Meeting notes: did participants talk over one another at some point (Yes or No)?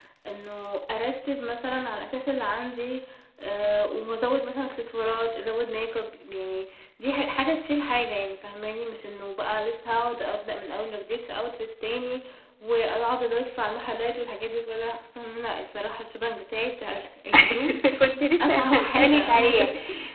Yes